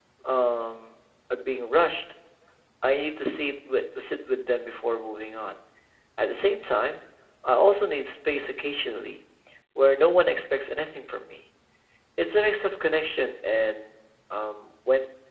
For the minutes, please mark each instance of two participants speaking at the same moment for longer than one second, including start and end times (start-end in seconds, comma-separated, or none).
none